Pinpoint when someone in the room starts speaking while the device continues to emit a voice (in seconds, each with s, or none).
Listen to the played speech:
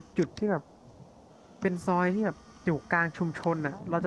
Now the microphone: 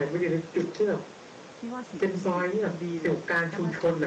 1.5 s